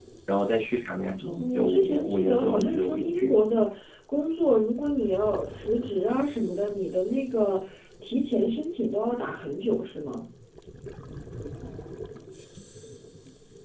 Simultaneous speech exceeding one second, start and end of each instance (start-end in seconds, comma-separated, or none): 1.4-3.4